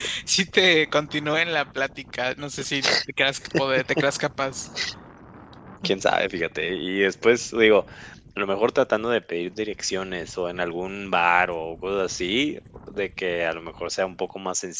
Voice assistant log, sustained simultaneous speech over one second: none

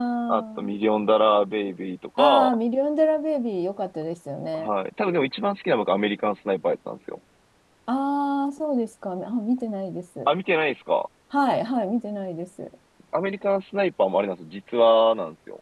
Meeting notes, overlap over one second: none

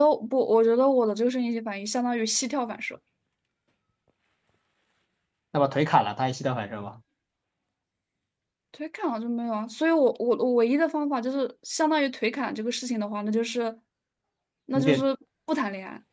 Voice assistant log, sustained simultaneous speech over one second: none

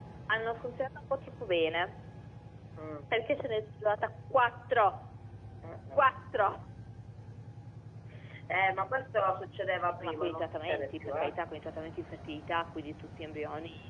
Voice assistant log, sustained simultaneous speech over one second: present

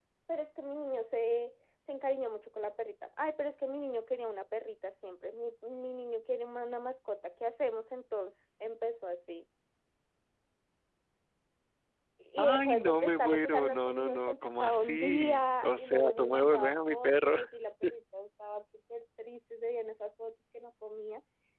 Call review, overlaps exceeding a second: present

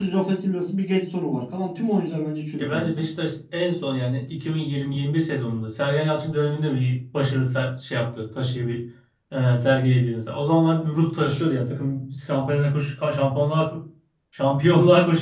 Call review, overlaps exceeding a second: none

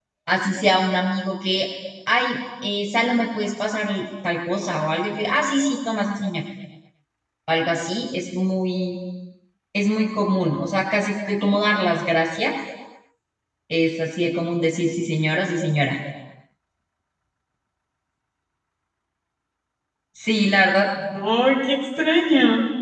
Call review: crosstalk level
none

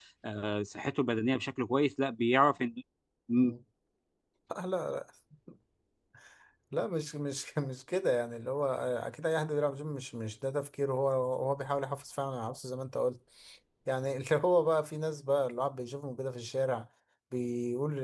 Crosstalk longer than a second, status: none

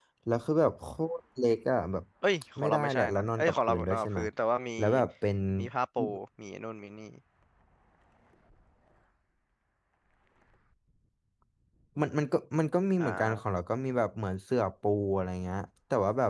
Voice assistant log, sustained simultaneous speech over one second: present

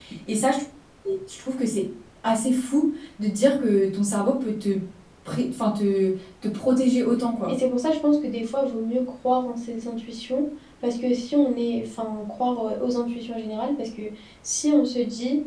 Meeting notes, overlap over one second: none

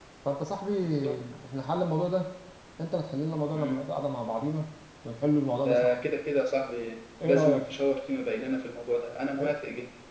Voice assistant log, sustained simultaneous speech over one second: none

